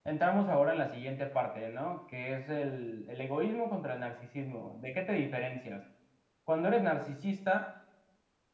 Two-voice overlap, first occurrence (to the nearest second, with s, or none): none